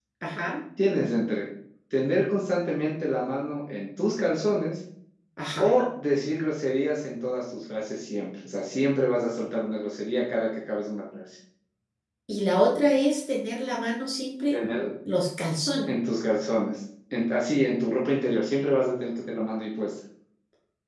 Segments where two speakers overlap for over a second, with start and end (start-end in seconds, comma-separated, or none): none